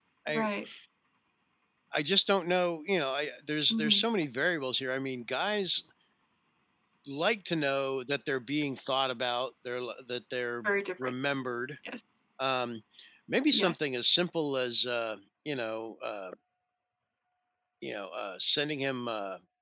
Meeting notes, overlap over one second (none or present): none